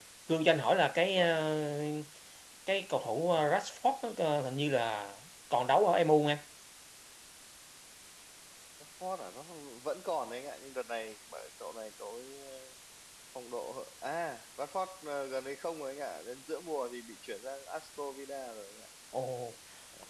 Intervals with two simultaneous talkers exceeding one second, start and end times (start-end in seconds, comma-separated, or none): none